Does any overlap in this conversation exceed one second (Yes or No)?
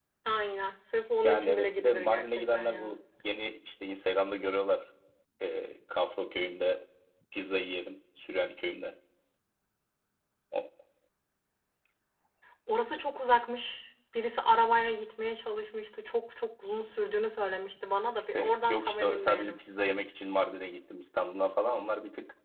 Yes